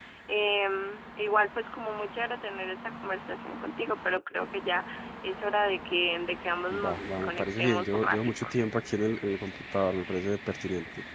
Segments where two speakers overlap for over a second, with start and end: 6.7-8.5

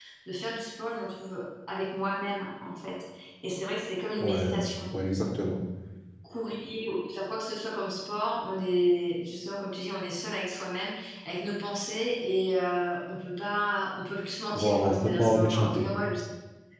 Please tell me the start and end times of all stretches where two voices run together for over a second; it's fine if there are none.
14.5-15.8

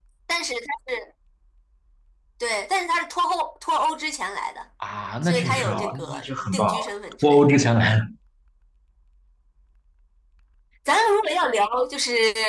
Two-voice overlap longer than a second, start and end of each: 5.2-6.8

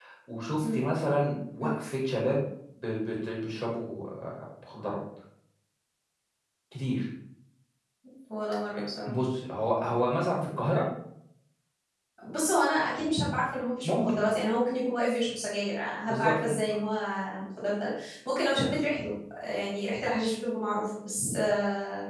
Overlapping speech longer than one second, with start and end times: none

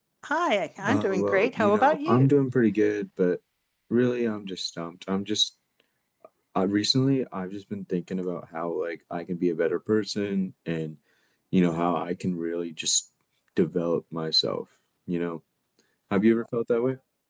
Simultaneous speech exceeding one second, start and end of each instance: 0.9-2.3

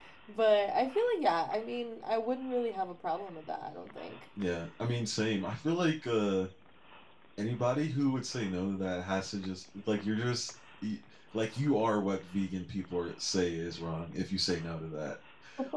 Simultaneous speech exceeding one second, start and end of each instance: none

